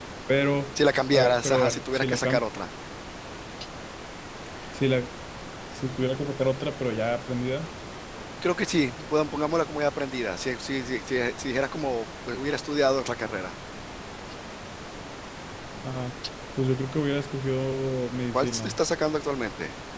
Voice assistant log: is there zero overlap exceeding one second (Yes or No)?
No